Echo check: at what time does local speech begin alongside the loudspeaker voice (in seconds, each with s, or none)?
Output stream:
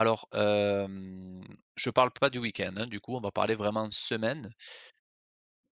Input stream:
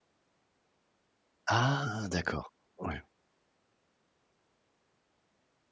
1.5 s